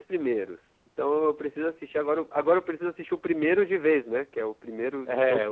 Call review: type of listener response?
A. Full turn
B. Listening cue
A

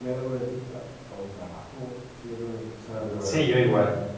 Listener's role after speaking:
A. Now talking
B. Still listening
A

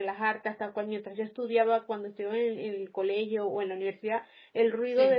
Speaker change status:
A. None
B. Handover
A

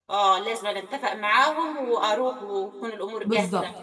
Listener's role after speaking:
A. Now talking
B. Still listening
A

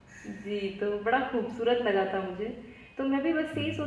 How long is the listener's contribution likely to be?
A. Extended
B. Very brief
B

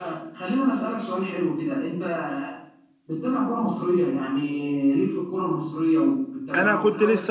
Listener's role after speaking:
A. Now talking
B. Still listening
A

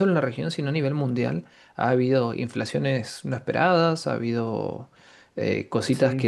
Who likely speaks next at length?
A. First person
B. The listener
A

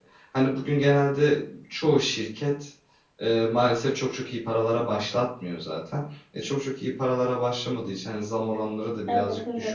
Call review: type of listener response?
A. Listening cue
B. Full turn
A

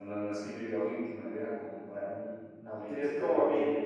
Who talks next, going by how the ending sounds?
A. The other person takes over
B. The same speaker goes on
A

